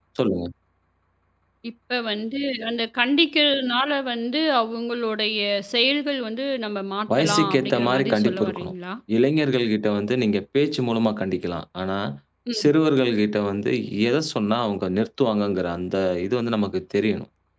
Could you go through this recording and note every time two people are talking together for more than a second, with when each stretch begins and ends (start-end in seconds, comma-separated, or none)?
7.2-8.7